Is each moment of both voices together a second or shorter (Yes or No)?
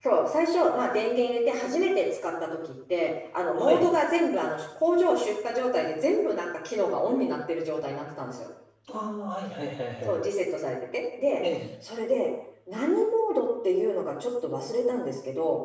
Yes